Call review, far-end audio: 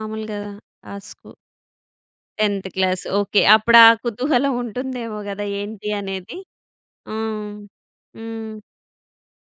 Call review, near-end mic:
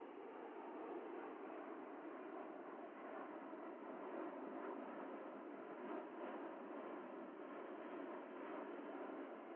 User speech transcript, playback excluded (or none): none